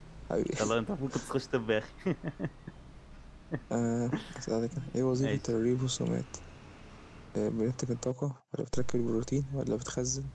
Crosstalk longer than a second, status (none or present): none